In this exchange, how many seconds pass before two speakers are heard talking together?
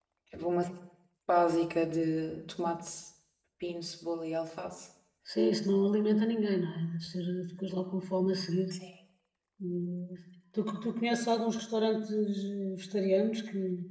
none

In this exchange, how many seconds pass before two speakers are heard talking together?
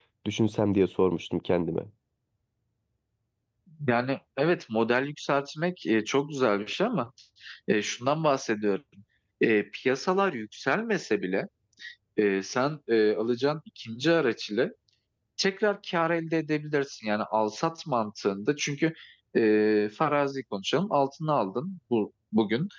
none

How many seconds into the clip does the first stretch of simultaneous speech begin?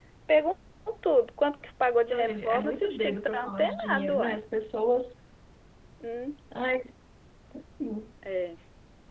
2.1 s

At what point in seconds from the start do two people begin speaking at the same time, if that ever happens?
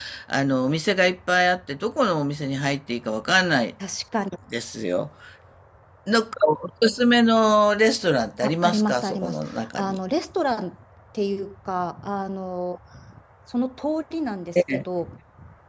8.4 s

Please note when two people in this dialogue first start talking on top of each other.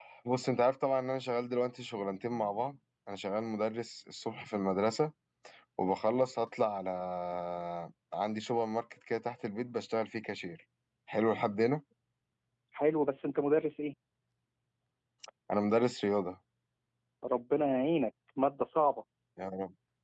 none

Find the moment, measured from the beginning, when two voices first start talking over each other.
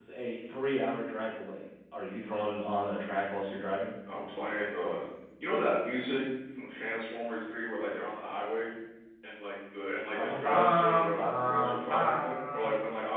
10.2 s

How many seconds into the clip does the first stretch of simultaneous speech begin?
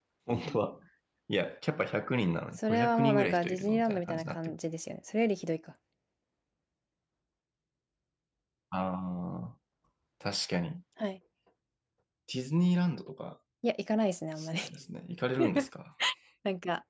2.6 s

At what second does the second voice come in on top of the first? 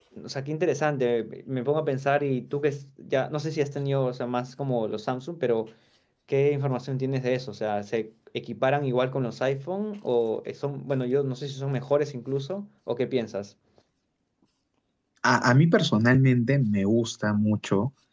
none

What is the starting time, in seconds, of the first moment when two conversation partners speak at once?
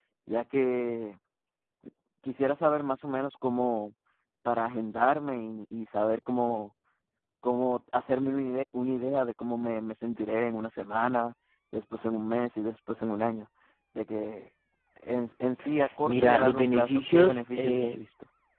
16.1 s

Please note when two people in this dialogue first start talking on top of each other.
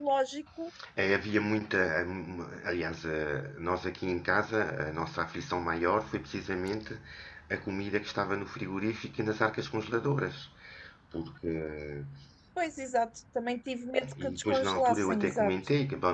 14.0 s

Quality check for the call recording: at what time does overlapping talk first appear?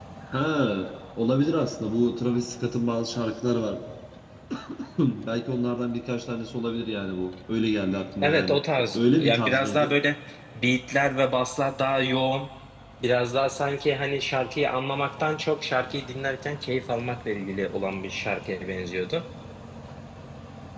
8.2 s

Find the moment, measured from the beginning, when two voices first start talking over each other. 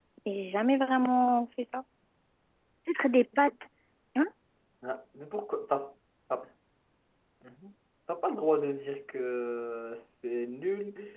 none

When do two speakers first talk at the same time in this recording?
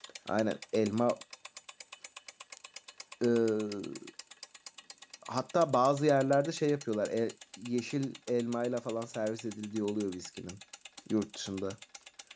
none

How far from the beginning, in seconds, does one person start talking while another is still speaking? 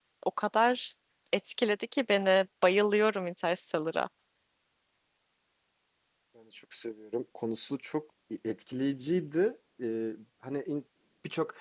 none

